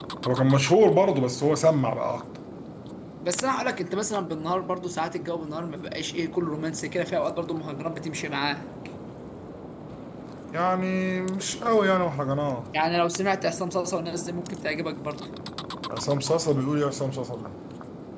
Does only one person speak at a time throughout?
Yes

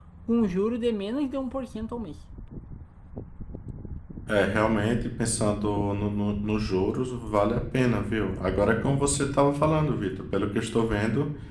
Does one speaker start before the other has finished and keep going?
No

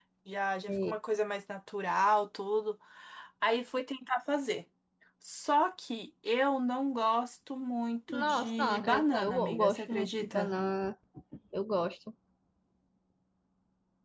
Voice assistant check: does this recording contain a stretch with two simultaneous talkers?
Yes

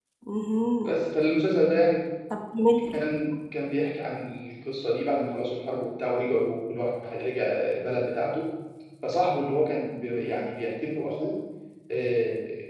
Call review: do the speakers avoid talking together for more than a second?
Yes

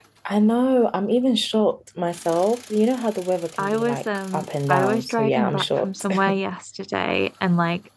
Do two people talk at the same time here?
Yes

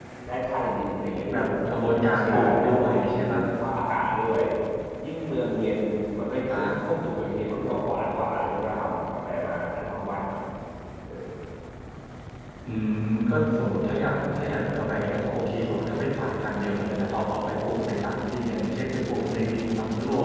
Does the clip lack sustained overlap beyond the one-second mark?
No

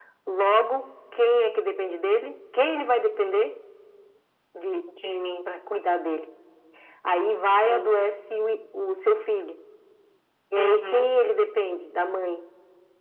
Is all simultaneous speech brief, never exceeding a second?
Yes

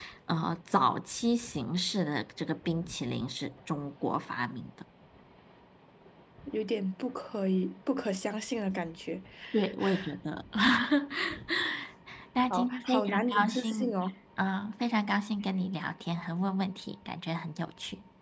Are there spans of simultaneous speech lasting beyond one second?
Yes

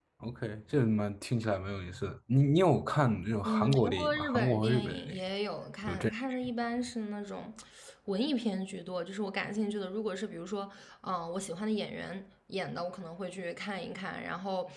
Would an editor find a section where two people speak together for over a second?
Yes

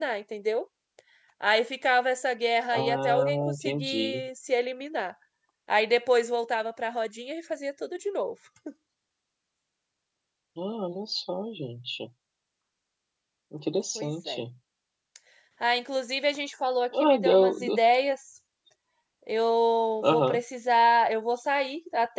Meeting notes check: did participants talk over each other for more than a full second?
Yes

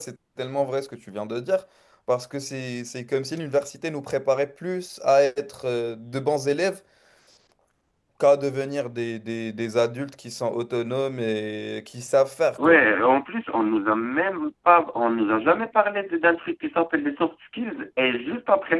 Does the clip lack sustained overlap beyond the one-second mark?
Yes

